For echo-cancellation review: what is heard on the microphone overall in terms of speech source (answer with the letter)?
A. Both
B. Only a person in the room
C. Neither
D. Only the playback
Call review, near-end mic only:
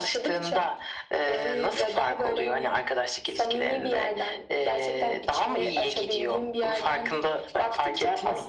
D